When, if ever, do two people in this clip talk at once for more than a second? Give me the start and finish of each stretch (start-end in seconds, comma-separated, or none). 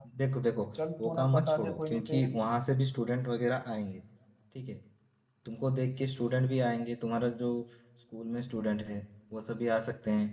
1.0-2.4